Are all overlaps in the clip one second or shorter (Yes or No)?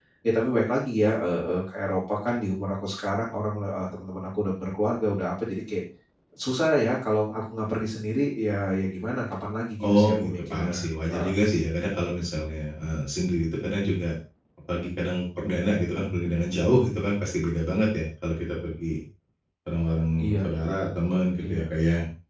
No